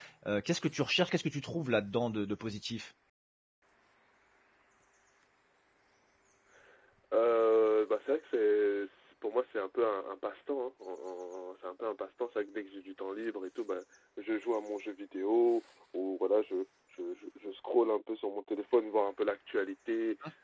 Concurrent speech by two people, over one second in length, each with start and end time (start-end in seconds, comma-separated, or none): none